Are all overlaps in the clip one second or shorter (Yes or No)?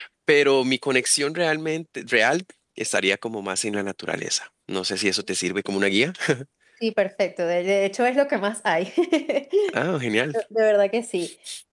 Yes